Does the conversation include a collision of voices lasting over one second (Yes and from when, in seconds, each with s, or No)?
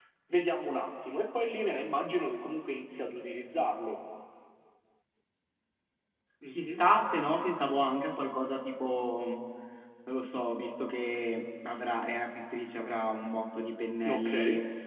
No